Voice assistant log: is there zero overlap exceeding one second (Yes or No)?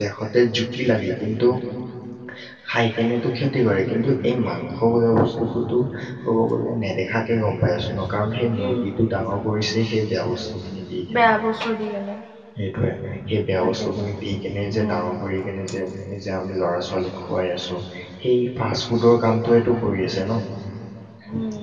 Yes